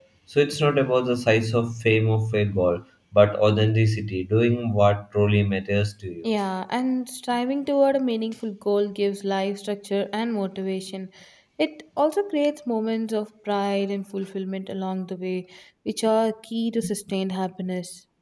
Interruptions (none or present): none